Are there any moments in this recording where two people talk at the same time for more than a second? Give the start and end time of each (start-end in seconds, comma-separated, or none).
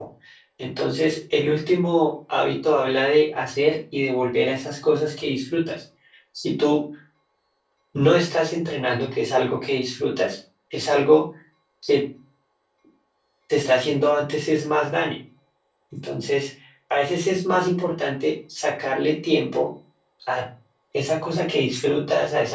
none